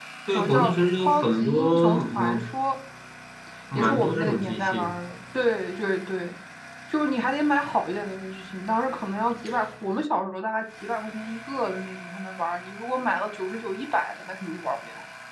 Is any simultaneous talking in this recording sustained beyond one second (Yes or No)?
Yes